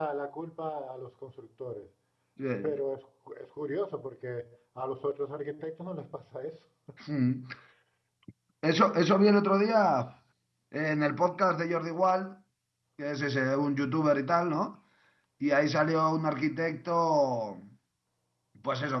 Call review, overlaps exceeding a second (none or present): none